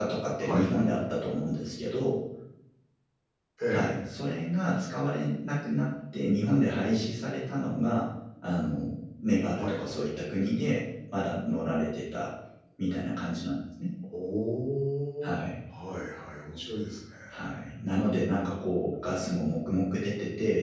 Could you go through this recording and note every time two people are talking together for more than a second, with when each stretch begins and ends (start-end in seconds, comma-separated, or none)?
none